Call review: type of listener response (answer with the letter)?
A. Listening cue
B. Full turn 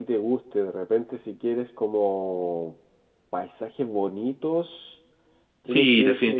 B